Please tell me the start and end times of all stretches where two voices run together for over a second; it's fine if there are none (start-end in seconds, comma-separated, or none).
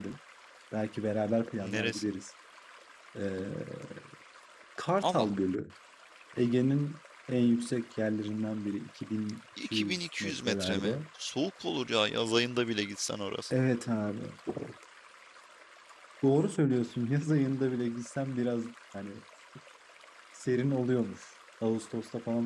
9.6-11.0